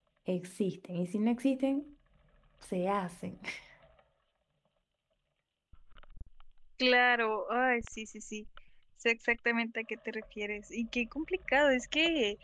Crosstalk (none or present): none